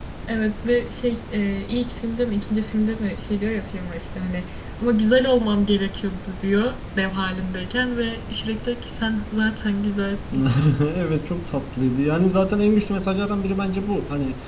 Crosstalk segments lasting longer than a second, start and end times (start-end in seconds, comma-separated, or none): none